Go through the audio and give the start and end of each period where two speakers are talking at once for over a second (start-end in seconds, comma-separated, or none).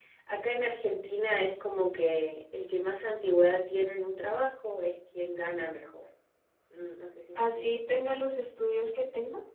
none